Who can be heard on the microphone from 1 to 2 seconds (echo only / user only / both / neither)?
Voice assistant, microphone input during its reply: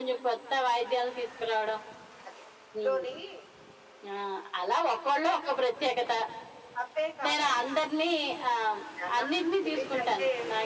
echo only